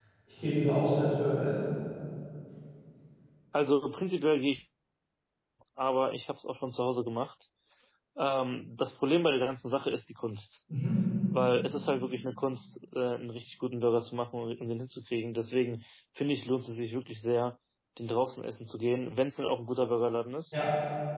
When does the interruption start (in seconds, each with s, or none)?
none